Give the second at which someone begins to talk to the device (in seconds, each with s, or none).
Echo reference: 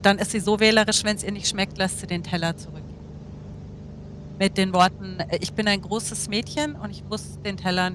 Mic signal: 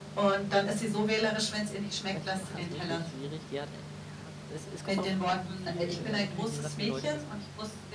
2.1 s